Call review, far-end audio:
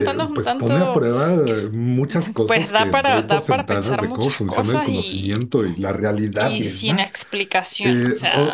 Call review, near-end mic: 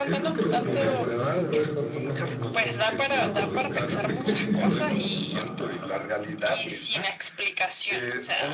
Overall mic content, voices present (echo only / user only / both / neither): both